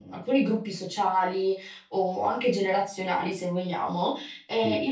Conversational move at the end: listening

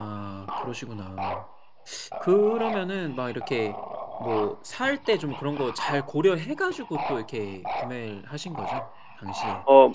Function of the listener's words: taking over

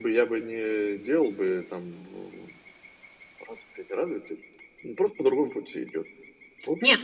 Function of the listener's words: taking over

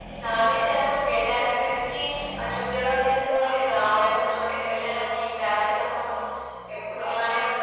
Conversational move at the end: listening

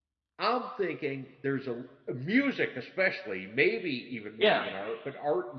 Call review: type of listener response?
listening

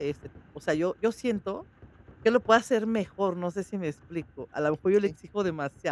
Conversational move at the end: listening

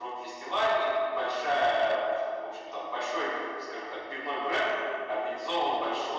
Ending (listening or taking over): listening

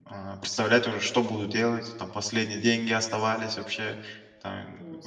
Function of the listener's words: listening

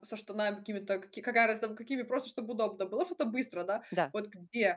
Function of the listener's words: listening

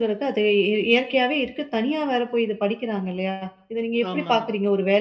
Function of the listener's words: listening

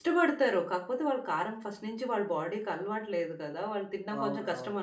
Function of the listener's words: listening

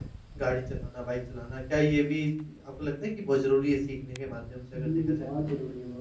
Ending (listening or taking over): taking over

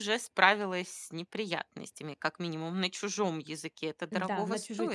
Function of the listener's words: taking over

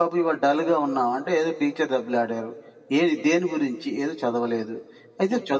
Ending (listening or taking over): listening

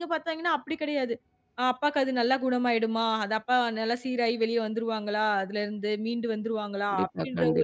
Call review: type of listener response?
listening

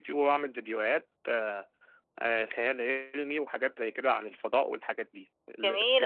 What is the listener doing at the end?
listening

